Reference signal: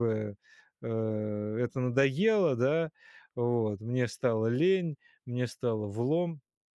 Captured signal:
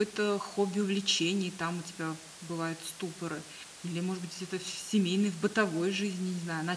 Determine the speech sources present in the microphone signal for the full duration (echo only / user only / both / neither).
user only